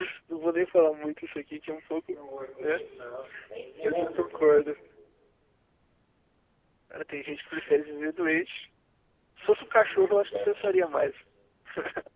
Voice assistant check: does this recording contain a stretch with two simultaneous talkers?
Yes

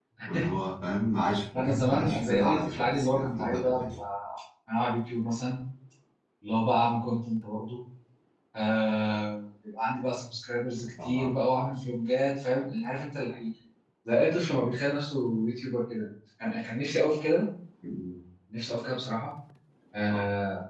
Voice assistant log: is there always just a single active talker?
No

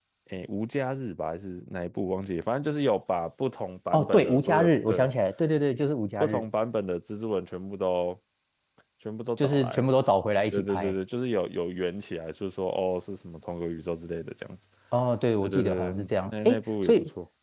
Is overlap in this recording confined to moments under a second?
No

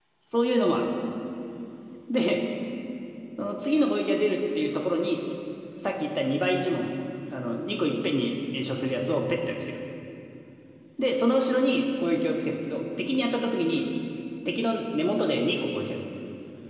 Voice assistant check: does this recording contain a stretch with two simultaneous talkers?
No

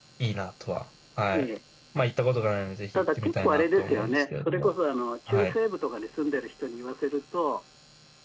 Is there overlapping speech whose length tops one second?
Yes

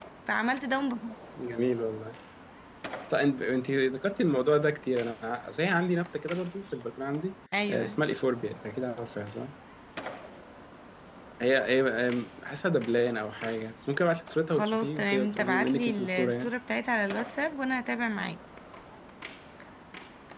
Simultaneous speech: Yes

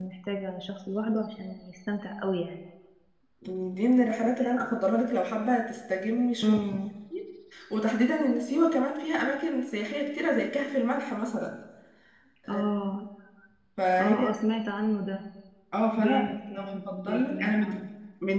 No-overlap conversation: No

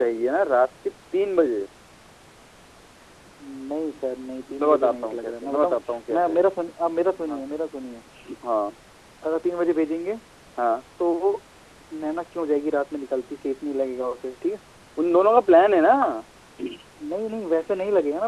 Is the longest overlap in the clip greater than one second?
Yes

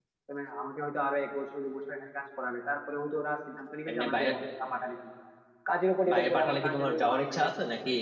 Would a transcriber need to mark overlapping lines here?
Yes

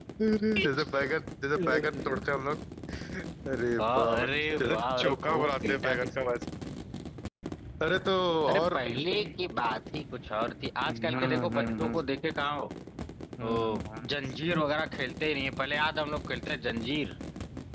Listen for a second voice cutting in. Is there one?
Yes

